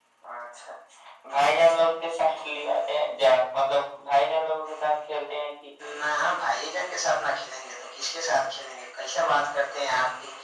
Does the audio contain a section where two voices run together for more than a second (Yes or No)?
No